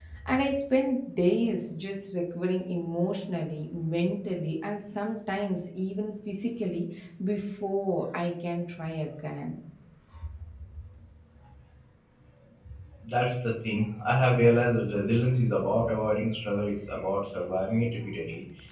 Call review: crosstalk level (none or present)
none